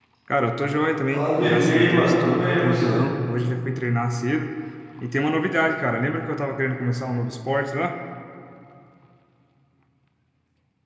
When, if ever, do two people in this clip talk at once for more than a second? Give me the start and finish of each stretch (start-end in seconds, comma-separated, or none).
1.1-3.0